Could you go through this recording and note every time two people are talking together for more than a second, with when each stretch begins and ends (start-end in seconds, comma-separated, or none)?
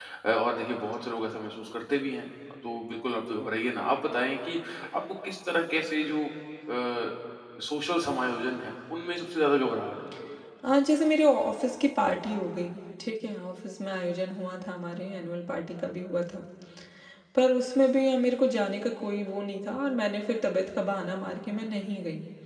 none